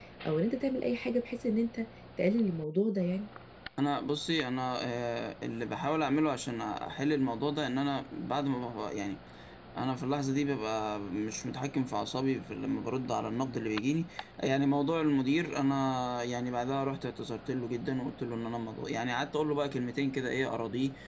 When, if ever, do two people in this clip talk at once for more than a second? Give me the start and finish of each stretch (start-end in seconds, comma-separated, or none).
none